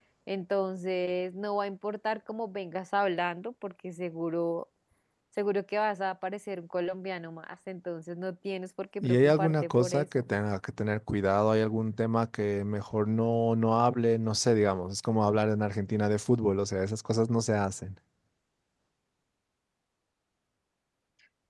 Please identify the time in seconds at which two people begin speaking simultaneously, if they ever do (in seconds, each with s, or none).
9.0 s